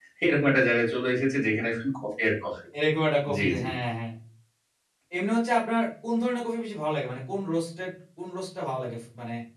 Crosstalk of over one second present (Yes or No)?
No